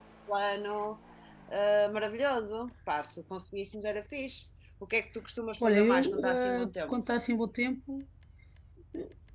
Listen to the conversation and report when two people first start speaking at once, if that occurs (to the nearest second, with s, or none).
6 s